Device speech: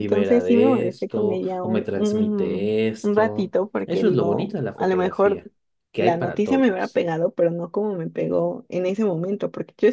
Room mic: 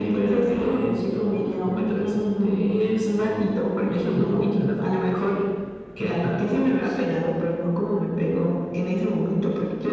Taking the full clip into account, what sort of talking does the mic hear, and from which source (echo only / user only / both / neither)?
echo only